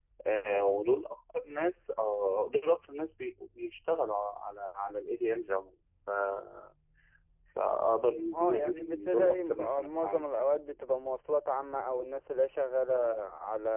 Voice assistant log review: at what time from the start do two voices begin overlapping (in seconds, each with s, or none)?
8.3 s